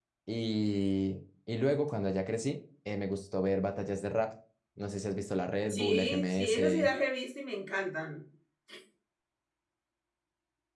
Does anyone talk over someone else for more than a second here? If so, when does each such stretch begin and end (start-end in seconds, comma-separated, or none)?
5.7-6.9